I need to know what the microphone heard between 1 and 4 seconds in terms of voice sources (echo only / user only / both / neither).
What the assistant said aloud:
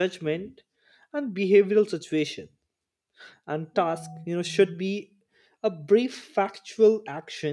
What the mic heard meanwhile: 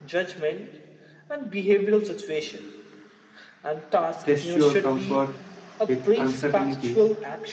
echo only